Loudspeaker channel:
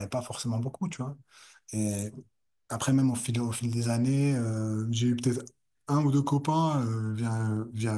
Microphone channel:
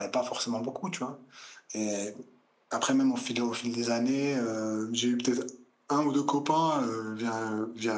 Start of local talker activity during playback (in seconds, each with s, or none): none